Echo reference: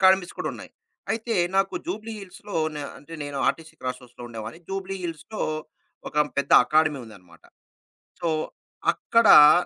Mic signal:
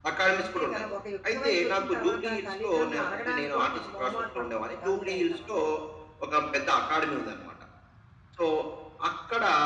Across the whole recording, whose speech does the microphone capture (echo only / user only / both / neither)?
both